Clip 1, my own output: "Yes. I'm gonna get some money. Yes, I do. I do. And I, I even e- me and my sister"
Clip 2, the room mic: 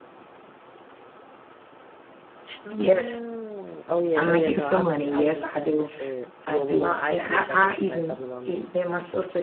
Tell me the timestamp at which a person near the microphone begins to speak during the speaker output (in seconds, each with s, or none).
2.6 s